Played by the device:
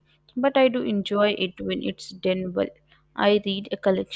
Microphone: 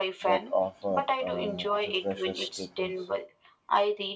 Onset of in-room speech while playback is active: 0.3 s

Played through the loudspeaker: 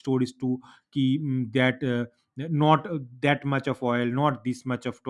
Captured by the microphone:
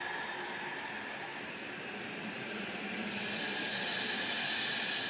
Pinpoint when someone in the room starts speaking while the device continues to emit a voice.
none

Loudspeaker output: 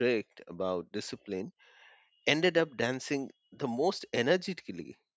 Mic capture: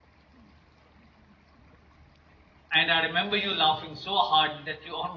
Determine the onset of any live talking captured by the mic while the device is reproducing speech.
2.7 s

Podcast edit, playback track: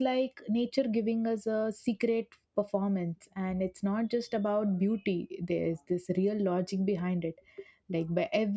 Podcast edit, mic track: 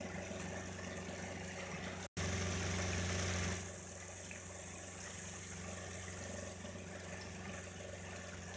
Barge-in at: none

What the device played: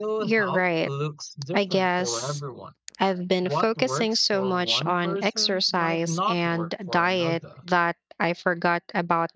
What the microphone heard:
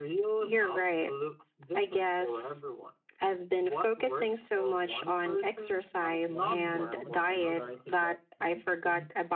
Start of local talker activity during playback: 6.3 s

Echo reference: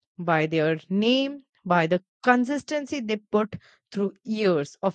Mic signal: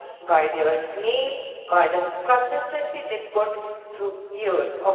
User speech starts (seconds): none

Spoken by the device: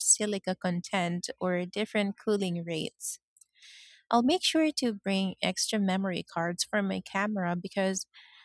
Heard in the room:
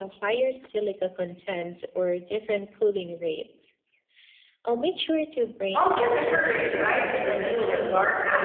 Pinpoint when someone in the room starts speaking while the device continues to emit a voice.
5.8 s

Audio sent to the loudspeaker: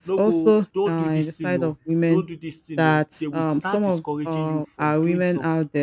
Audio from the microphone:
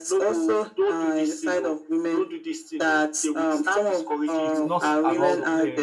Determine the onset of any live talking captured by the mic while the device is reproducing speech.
4.4 s

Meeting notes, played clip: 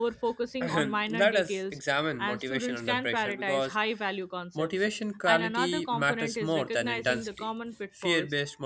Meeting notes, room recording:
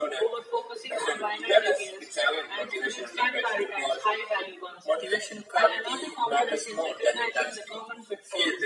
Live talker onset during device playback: none

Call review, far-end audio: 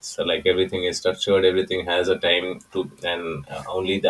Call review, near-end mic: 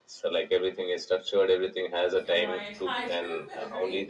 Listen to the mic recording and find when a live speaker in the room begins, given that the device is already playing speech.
2.2 s

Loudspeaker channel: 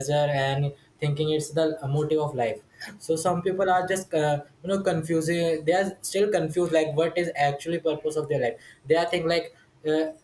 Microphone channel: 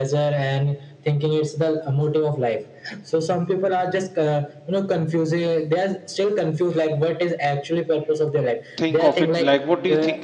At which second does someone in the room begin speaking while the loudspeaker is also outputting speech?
8.8 s

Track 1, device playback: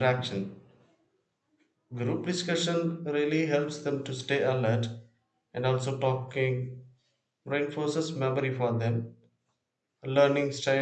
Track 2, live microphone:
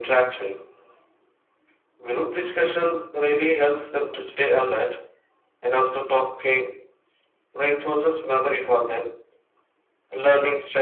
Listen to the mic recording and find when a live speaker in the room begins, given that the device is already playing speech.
none

